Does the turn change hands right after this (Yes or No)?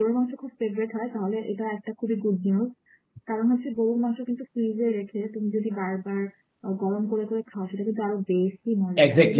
Yes